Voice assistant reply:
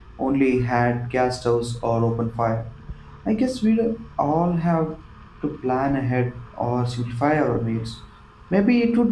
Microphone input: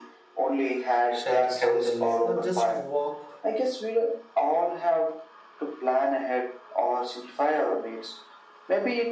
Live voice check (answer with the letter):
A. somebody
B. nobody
A